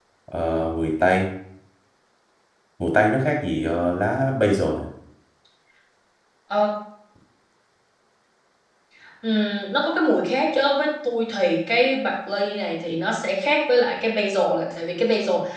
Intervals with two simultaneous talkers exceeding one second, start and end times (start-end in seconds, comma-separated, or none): none